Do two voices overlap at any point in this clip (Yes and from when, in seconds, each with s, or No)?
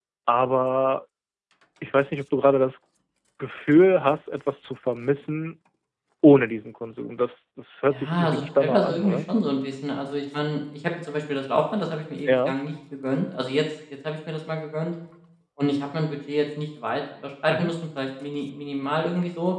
Yes, from 7.9 s